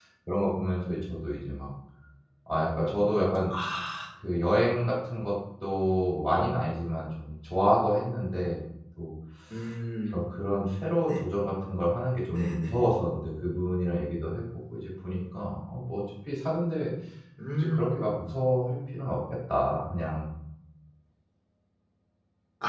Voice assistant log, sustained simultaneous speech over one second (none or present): none